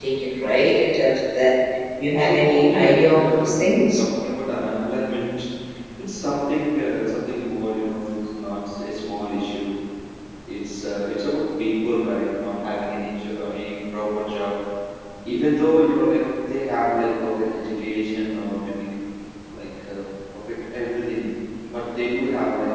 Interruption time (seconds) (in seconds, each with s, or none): 2.2 s